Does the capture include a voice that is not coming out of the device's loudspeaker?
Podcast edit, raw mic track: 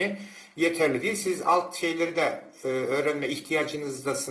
Yes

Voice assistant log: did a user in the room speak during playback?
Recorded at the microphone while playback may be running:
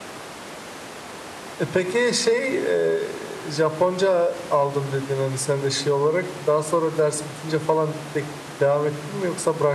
No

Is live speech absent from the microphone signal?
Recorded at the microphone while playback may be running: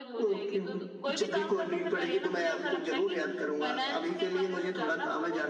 Yes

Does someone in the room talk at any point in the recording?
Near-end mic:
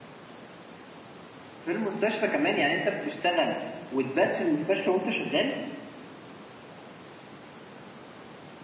Yes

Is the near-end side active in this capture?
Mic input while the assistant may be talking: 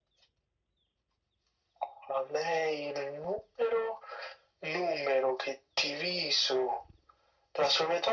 No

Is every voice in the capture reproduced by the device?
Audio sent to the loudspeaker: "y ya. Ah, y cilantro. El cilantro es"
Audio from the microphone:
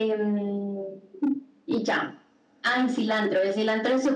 Yes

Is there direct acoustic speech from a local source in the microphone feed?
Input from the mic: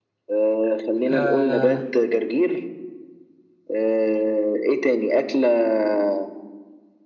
Yes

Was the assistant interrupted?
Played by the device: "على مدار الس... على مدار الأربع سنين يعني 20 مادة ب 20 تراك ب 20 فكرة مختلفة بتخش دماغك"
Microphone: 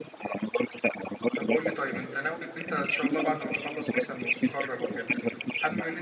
Yes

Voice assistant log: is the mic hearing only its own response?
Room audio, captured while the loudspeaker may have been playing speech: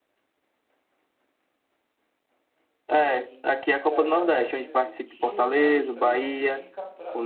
No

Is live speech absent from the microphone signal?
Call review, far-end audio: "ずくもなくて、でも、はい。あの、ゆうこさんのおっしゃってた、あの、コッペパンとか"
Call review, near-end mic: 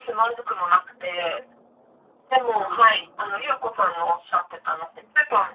No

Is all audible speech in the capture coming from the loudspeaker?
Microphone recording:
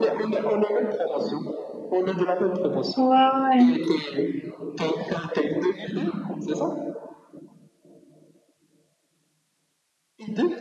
No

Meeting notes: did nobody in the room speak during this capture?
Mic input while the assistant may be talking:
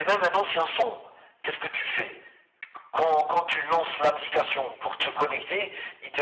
Yes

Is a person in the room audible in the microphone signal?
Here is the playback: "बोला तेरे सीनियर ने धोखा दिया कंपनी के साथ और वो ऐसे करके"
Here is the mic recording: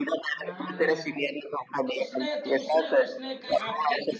Yes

